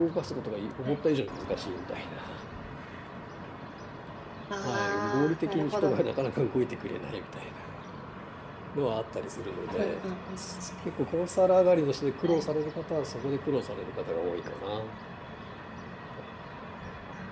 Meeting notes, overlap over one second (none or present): present